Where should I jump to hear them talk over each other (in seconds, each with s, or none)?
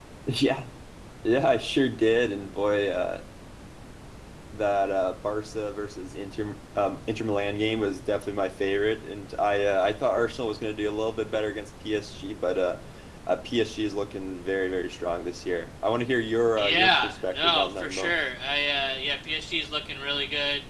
16.6 s